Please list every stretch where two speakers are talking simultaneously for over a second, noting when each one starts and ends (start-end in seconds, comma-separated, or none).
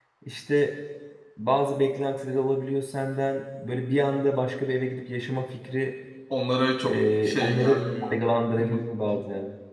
6.8-8.2